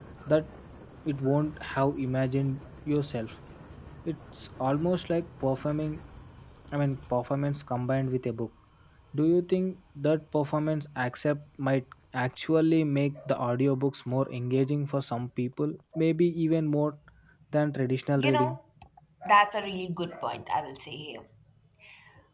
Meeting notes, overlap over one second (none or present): none